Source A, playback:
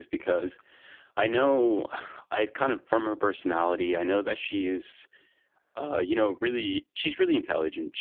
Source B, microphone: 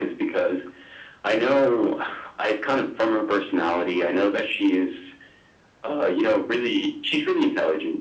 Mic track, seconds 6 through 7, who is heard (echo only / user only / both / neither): echo only